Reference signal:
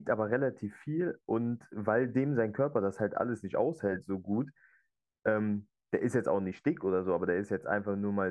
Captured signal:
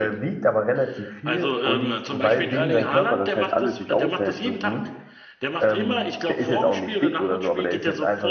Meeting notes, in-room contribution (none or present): present